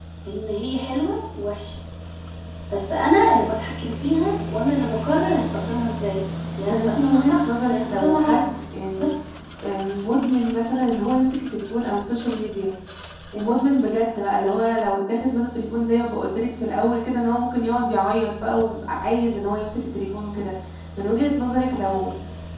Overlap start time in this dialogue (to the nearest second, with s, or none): 7 s